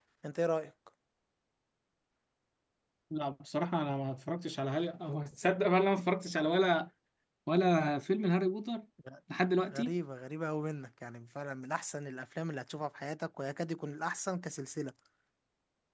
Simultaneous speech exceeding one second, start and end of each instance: none

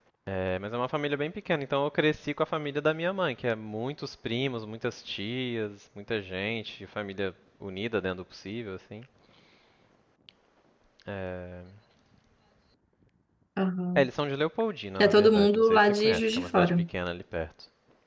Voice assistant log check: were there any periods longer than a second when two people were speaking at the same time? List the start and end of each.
15.0-16.7

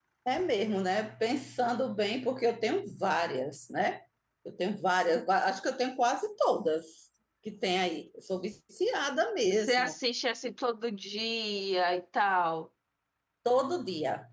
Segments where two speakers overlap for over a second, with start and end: none

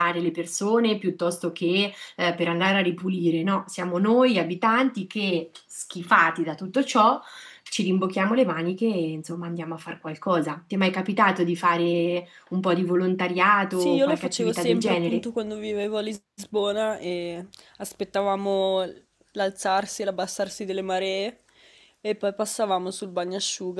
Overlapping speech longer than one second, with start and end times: 13.7-15.2

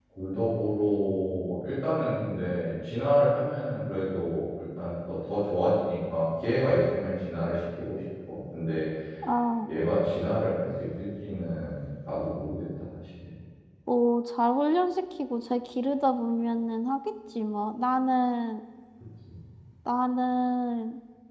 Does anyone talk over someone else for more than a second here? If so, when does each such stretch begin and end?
none

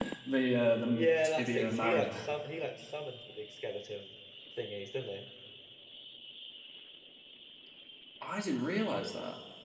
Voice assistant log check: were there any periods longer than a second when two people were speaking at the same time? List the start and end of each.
0.9-2.2

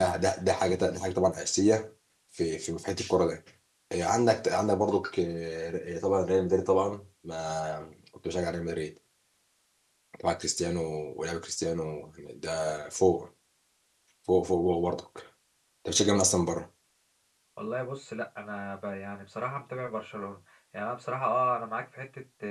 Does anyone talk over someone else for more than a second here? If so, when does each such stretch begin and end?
none

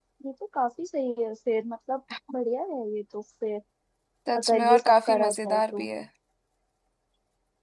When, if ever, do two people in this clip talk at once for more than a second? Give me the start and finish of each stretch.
4.4-5.9

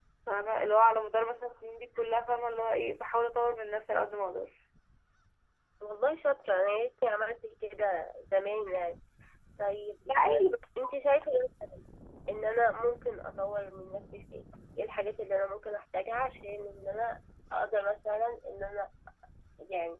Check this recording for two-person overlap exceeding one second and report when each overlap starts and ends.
none

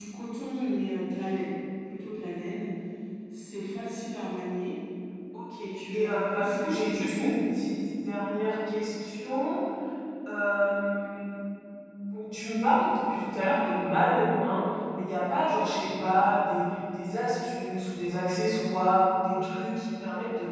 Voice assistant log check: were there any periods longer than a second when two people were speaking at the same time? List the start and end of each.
5.6-6.9

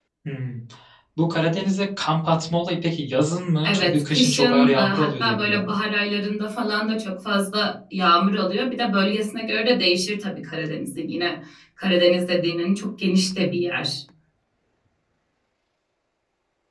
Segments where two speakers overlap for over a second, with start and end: 3.6-5.7

